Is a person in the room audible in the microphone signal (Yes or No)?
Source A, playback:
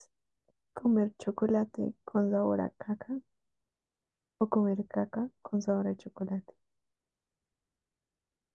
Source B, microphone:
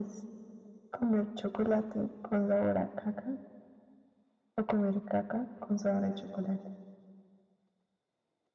No